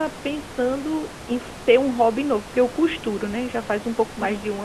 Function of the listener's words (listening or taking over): listening